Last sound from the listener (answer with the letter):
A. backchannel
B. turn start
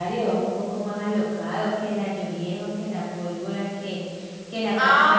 B